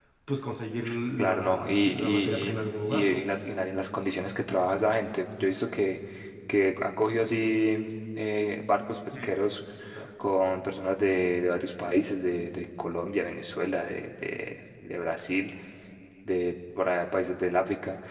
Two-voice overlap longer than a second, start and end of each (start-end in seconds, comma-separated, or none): 1.2-3.2